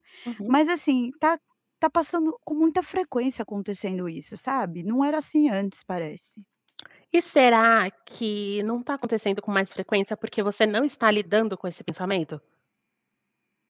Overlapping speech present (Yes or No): No